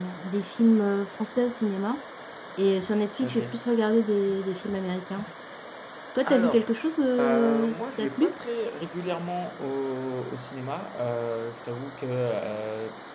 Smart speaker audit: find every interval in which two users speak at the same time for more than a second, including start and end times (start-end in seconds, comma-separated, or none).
7.2-8.4